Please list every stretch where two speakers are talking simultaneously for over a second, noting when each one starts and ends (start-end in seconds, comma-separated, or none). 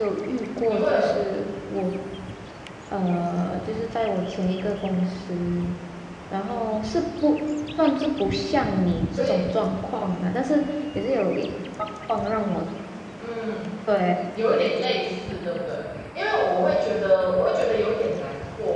none